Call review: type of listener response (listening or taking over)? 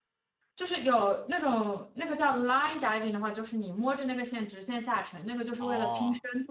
listening